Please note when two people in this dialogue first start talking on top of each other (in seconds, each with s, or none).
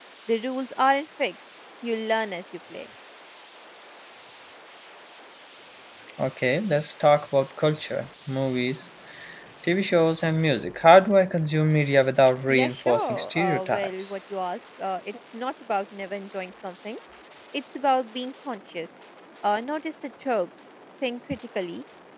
12.5 s